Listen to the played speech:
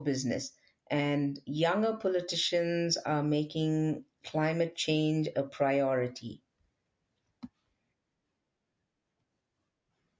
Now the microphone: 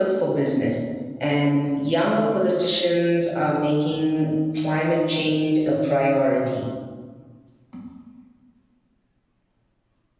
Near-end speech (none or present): none